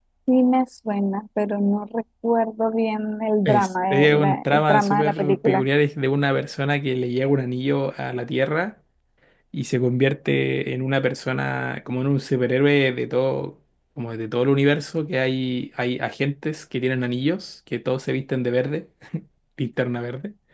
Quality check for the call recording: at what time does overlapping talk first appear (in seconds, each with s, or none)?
3.4 s